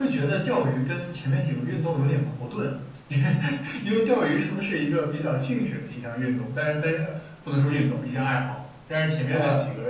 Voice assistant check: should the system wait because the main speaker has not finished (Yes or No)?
Yes